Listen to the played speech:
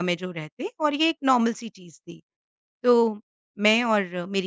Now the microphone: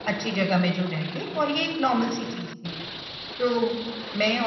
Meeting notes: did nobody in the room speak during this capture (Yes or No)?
Yes